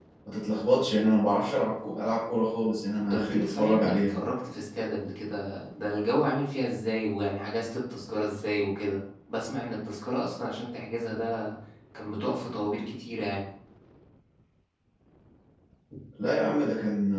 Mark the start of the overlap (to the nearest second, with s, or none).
3 s